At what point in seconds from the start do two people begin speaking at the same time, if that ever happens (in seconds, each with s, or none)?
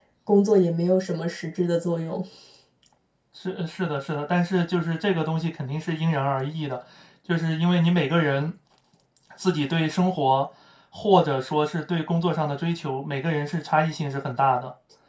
none